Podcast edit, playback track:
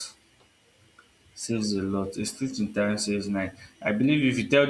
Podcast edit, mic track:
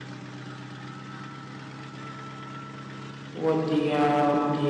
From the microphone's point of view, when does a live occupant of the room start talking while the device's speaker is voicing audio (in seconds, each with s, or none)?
3.3 s